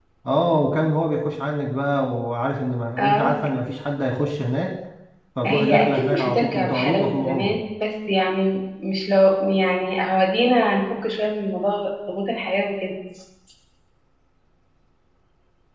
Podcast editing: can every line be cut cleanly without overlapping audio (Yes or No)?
No